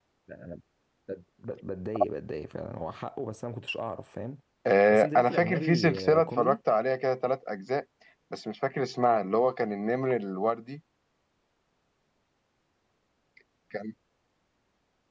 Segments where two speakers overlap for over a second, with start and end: 4.9-6.6

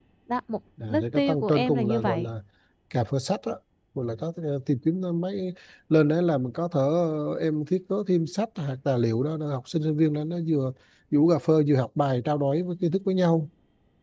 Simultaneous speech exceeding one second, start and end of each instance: 0.9-2.3

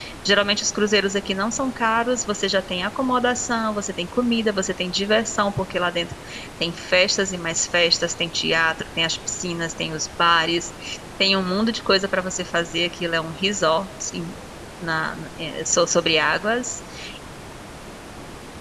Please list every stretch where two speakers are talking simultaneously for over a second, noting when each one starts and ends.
none

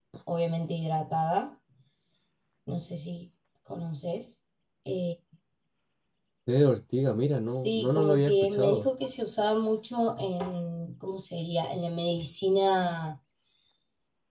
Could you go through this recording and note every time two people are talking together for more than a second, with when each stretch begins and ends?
7.4-8.9

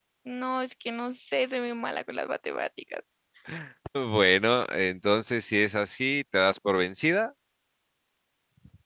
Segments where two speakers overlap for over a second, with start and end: none

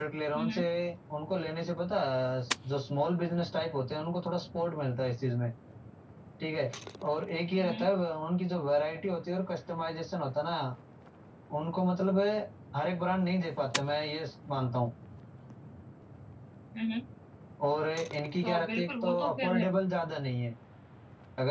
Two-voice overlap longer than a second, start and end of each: 18.4-19.7

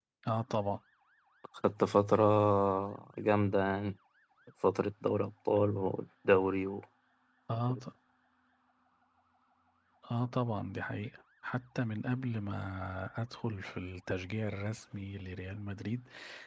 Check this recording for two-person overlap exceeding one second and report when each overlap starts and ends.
none

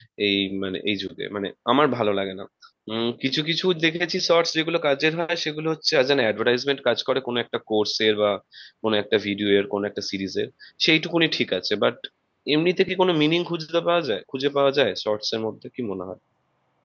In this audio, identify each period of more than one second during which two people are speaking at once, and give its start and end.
none

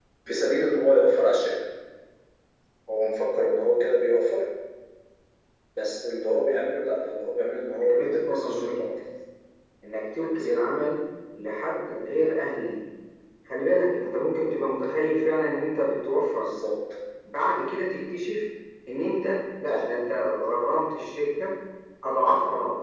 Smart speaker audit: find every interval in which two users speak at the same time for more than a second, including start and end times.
7.7-8.9

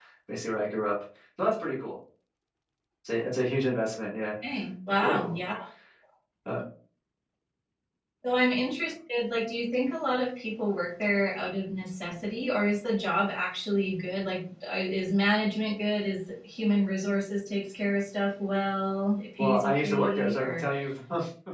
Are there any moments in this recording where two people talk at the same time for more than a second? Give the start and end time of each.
19.4-20.6

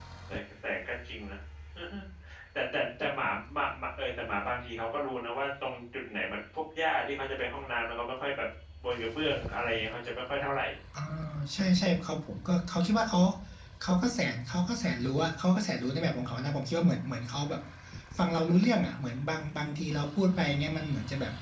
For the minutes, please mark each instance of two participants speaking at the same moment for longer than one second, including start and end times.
none

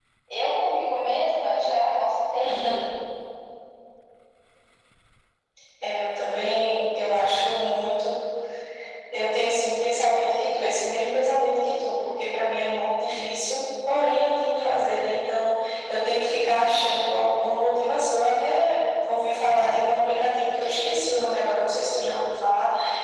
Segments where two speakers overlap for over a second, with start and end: none

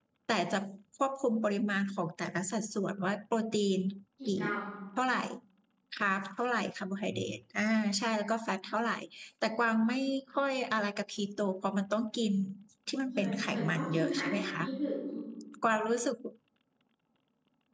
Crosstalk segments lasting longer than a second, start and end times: 13.1-14.6

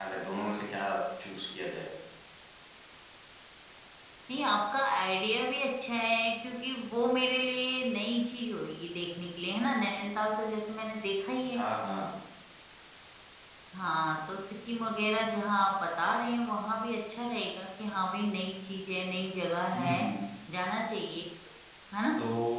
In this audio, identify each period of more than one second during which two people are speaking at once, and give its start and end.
none

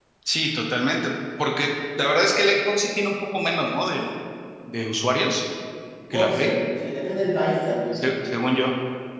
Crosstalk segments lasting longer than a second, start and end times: none

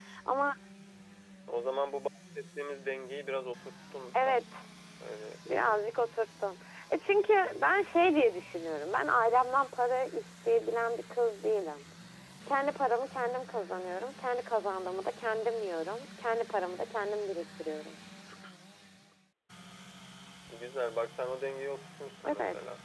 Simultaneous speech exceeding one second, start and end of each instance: none

